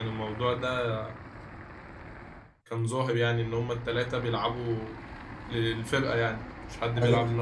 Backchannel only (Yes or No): No